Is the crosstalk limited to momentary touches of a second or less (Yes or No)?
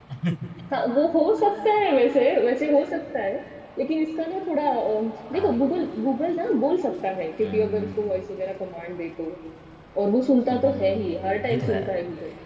No